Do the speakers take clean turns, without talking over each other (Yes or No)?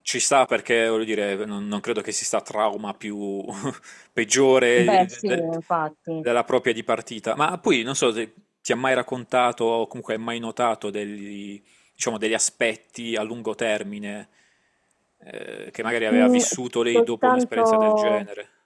No